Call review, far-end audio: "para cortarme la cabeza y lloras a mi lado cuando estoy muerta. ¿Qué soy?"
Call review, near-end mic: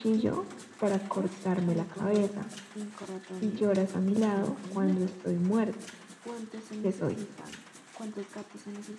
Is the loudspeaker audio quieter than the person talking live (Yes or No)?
No